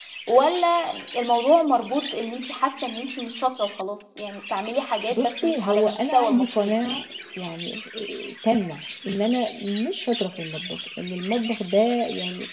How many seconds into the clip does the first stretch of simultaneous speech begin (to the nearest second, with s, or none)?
5 s